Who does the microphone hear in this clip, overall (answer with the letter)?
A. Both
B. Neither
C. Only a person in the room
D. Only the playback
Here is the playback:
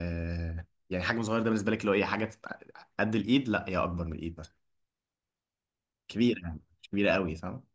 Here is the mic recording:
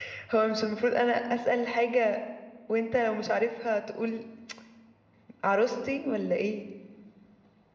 C